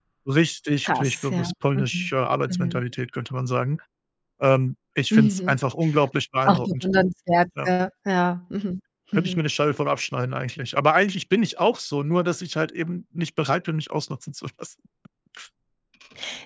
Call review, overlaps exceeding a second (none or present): present